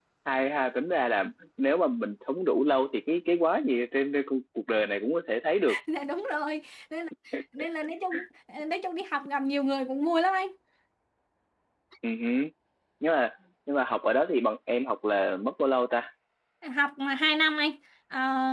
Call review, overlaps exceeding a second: none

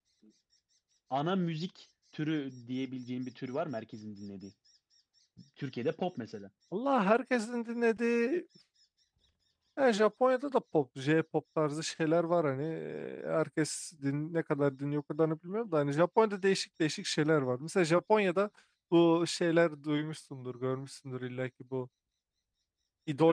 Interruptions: none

